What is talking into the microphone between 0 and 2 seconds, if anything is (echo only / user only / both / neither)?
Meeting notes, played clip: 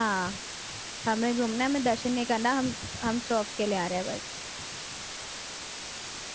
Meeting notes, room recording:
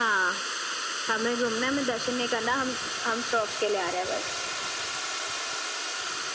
echo only